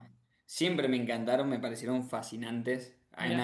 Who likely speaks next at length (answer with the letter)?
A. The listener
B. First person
B